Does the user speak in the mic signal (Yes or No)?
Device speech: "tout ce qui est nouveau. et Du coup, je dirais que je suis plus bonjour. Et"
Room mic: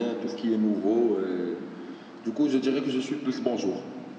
No